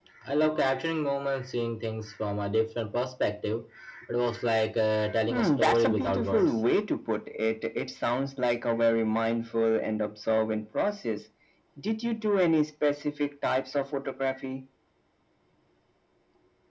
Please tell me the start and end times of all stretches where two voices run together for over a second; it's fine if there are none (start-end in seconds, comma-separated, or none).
5.3-6.6